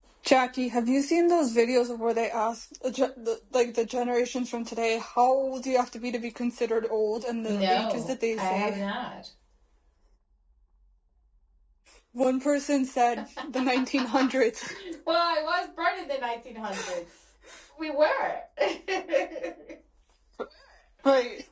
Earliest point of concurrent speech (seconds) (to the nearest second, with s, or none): 7 s